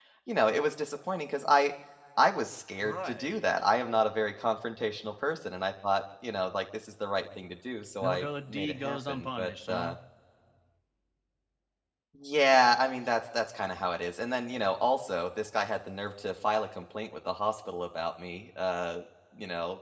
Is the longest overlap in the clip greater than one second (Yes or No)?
Yes